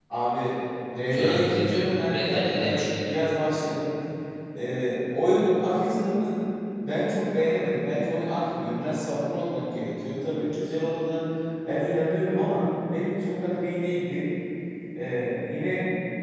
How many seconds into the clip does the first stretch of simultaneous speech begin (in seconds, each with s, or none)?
1.1 s